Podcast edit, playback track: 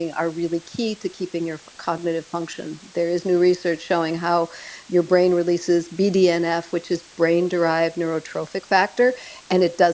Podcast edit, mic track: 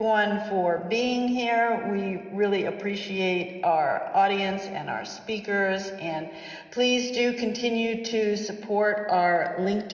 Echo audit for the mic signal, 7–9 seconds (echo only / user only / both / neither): user only